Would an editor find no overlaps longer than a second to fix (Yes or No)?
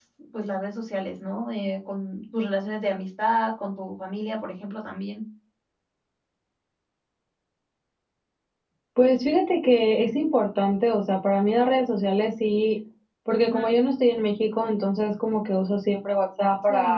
Yes